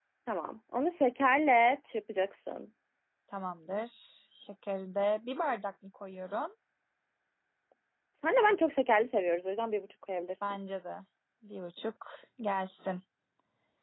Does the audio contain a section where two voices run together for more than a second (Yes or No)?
No